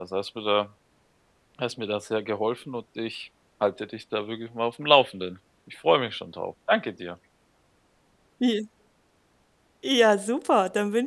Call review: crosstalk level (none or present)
none